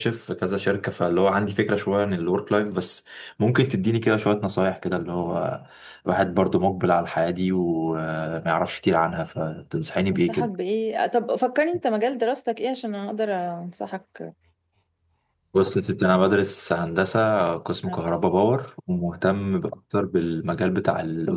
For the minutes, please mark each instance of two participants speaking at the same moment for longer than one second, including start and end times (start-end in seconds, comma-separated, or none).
none